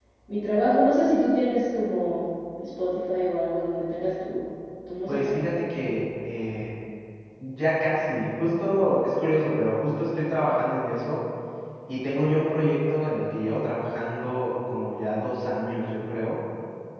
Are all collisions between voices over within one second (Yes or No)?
Yes